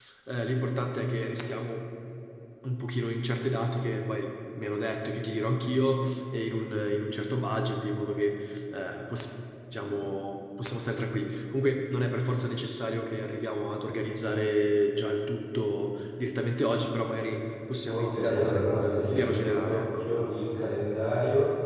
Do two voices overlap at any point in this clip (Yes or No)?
Yes